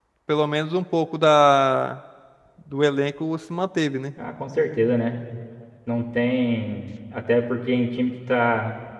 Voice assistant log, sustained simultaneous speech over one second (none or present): none